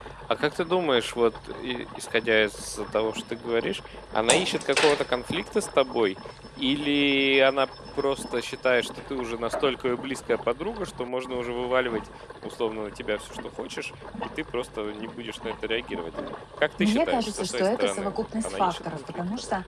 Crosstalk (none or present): present